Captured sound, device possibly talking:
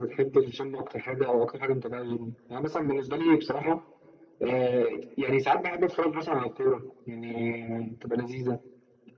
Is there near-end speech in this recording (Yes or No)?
No